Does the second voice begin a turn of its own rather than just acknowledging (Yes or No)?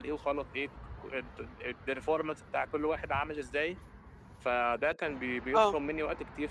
No